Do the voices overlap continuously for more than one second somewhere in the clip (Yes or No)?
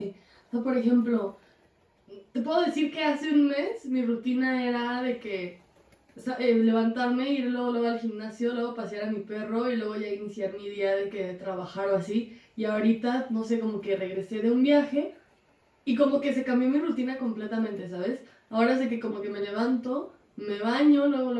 No